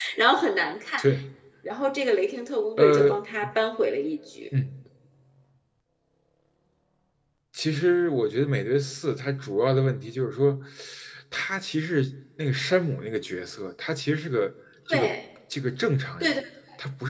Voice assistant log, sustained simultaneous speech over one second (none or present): none